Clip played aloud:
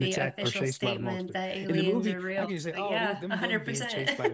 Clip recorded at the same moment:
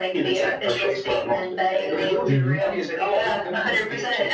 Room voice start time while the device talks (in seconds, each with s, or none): 2.3 s